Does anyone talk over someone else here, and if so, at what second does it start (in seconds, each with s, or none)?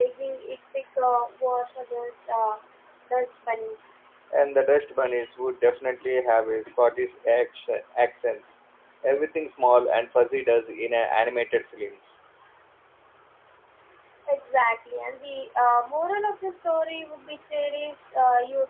none